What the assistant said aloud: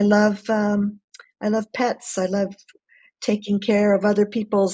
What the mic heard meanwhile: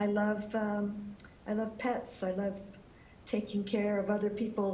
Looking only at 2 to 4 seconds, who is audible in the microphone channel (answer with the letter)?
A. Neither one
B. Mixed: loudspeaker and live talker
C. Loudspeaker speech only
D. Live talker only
C